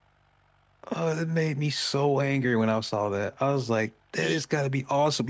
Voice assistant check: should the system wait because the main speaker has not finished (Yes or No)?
Yes